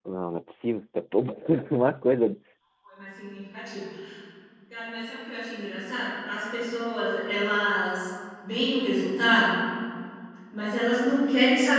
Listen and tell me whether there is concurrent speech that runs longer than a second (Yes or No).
No